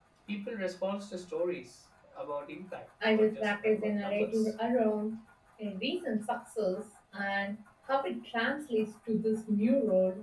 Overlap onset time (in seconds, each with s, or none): 3.0 s